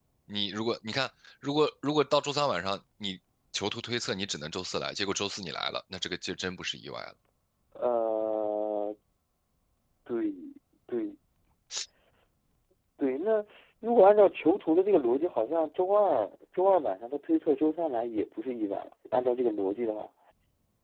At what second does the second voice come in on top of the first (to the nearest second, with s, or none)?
none